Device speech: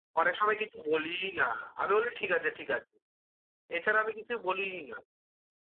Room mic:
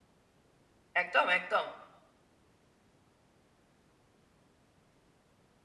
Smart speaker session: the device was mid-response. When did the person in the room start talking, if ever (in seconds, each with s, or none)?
1.0 s